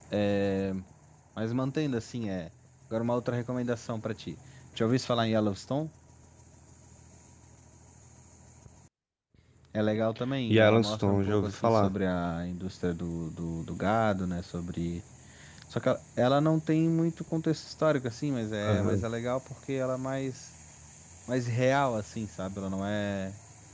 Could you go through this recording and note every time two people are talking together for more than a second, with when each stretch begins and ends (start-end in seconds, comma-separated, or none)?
10.5-11.9